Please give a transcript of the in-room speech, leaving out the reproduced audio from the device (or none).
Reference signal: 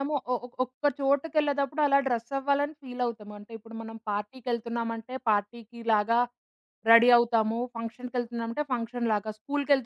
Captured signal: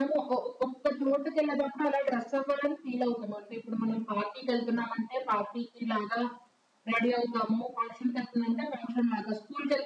none